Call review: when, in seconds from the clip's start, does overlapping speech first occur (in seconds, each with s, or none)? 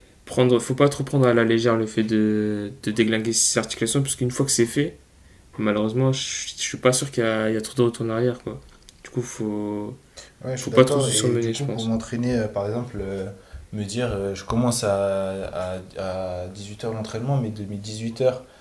10.6 s